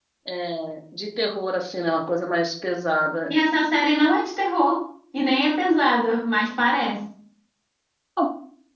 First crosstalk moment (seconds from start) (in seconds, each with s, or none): none